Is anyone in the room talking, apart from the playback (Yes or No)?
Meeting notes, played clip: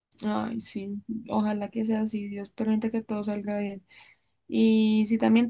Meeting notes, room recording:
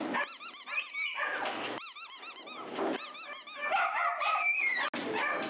No